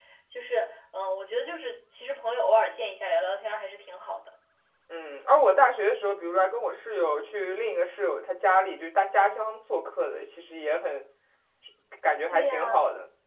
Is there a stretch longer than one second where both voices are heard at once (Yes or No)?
No